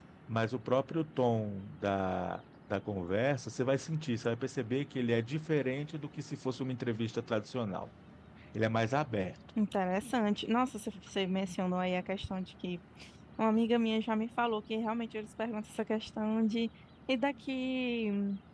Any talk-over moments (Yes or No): No